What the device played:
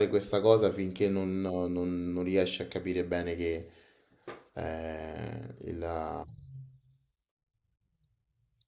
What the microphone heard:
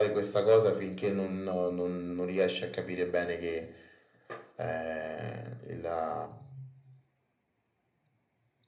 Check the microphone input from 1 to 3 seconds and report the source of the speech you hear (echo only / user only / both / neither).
echo only